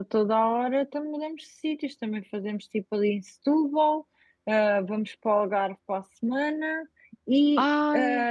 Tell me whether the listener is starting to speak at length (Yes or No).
No